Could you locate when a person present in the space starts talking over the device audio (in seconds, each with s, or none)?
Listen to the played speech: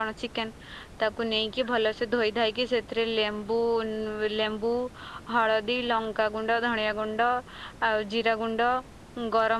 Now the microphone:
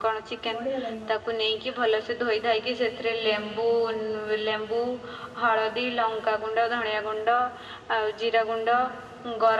0.5 s